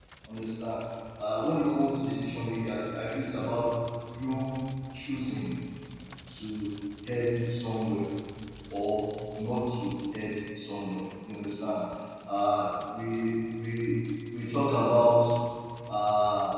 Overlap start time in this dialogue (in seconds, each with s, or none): none